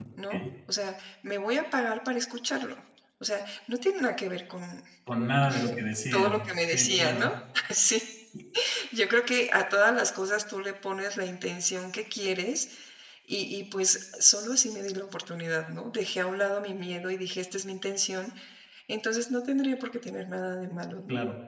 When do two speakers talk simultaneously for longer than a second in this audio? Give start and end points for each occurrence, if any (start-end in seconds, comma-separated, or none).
6.1-7.3